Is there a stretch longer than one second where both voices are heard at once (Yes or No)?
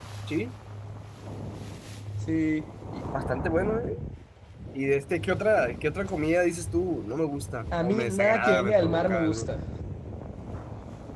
Yes